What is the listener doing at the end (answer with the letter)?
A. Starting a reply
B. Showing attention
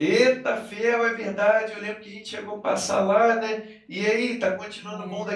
A